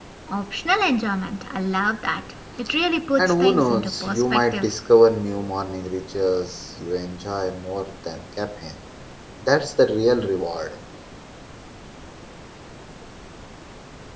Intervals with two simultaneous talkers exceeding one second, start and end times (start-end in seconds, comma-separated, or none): 3.2-4.7